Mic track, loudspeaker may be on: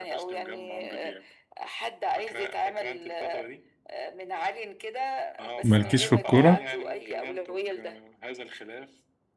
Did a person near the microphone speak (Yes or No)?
Yes